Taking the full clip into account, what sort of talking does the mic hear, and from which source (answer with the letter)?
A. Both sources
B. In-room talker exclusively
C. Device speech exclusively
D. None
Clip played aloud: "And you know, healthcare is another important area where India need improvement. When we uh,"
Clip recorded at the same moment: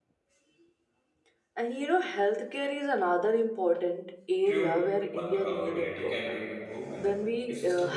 A